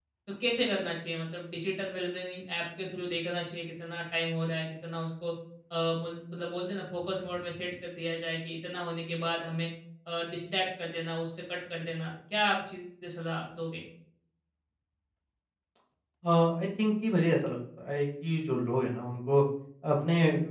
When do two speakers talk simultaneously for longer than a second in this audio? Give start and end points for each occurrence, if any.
none

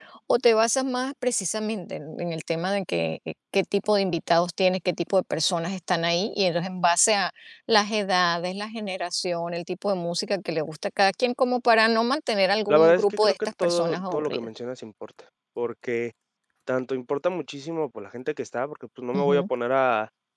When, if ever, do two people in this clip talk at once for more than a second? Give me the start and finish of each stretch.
12.7-14.5

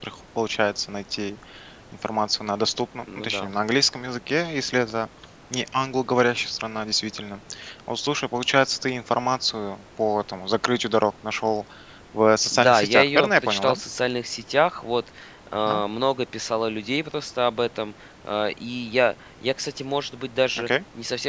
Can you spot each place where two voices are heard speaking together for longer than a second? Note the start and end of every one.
12.5-13.8

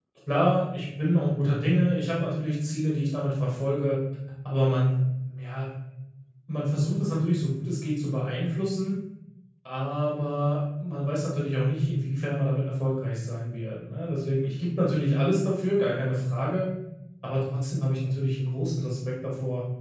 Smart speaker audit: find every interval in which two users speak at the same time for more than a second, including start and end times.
none

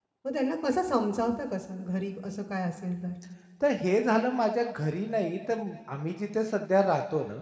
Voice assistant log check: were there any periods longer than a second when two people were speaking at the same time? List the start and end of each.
none

